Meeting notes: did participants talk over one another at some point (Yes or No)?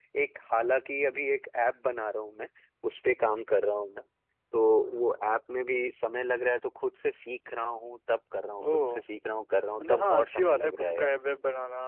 Yes